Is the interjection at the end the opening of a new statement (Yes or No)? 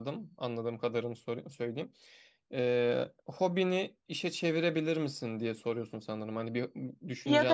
Yes